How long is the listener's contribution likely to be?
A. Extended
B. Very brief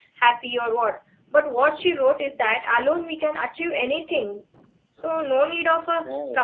B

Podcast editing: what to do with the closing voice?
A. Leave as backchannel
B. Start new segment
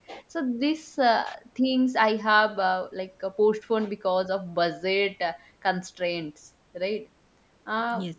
A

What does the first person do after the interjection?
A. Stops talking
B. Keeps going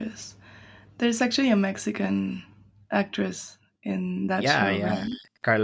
A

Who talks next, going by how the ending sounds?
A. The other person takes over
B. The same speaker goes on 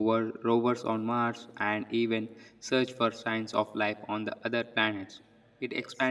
B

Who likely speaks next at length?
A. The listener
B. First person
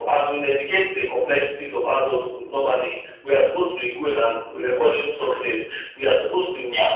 B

